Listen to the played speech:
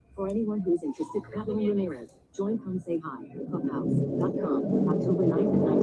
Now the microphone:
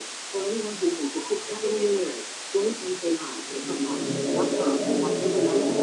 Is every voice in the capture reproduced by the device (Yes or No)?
Yes